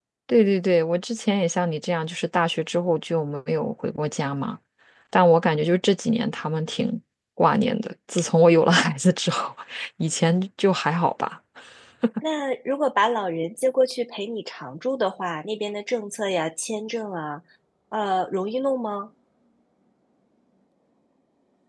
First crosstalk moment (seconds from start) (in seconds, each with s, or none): none